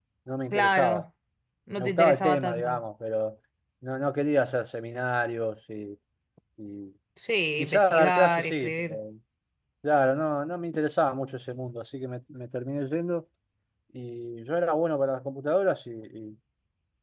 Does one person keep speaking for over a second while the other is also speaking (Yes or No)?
Yes